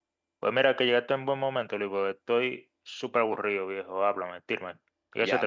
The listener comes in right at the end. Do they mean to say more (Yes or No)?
Yes